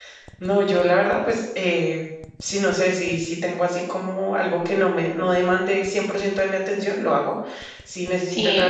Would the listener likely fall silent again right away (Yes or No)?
Yes